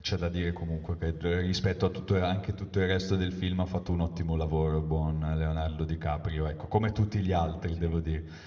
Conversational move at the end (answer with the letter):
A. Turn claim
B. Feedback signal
B